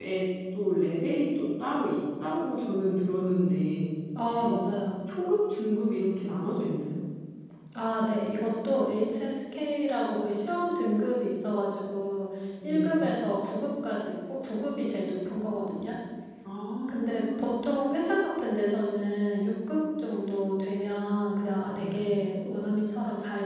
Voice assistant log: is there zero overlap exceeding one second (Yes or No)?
Yes